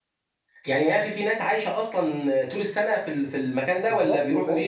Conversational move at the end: taking over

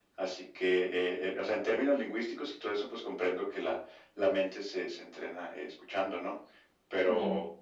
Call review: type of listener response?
listening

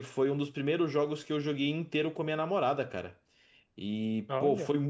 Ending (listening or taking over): listening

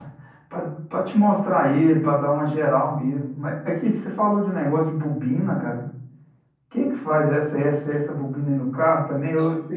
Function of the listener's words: listening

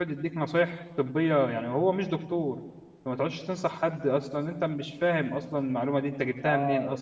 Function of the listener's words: taking over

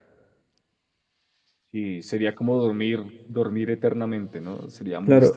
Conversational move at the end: taking over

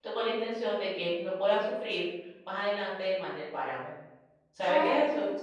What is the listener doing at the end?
taking over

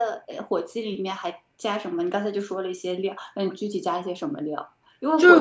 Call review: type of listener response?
listening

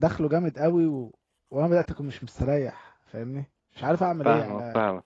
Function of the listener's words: taking over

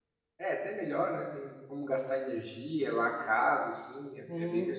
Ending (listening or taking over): taking over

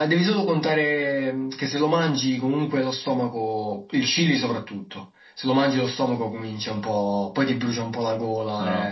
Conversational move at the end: taking over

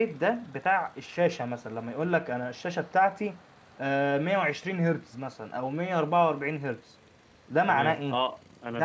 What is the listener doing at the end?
taking over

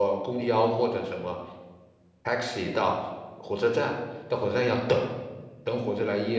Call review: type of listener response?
listening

